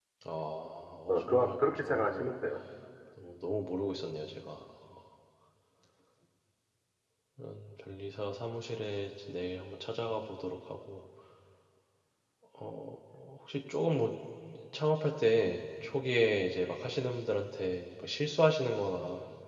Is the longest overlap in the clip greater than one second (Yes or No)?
Yes